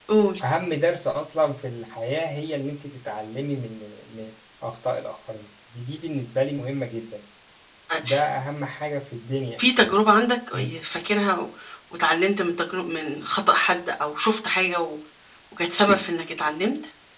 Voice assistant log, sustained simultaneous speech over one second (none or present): none